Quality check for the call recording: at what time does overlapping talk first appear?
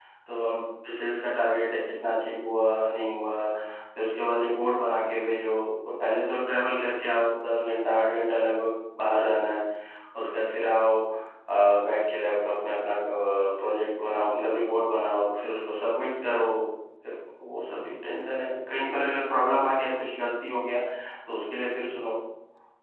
none

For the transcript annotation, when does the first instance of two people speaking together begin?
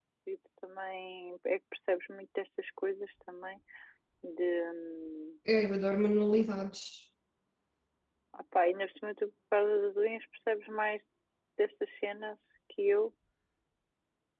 none

